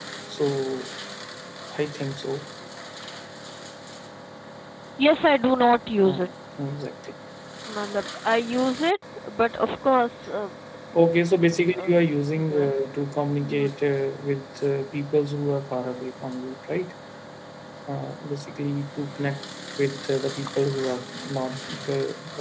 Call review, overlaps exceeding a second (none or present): none